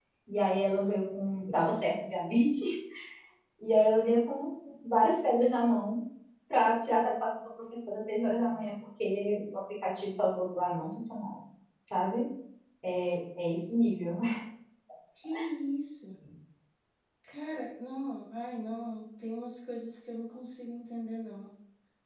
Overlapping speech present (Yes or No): No